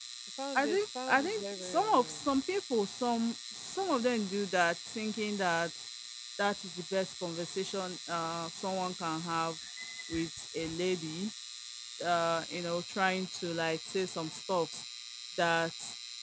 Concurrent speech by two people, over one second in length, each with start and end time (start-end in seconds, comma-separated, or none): 0.6-2.2